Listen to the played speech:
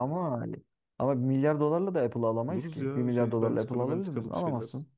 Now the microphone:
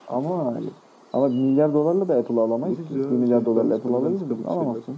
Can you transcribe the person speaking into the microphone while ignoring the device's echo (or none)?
none